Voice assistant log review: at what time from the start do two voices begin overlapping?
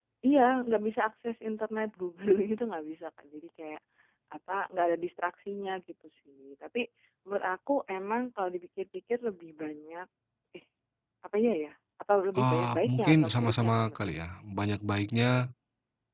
12.3 s

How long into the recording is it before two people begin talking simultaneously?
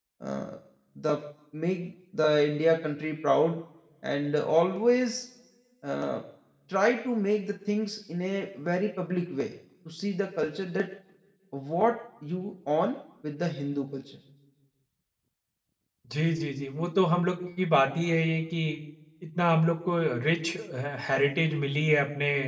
none

